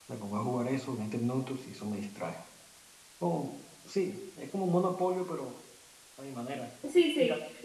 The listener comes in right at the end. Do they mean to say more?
Yes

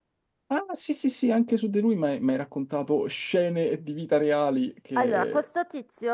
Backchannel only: No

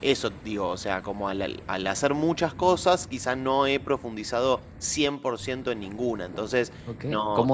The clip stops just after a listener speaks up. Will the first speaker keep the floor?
No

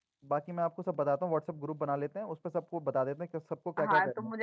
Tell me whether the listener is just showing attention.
No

